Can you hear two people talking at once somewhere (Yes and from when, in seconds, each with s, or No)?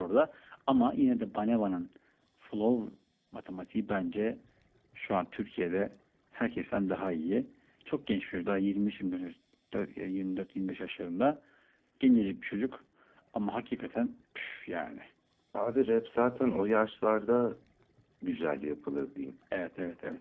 No